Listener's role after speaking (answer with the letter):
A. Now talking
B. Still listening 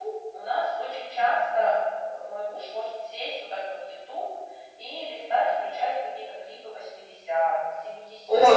A